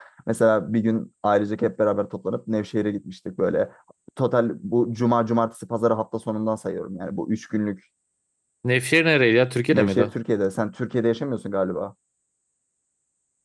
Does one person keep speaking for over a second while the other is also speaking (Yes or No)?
No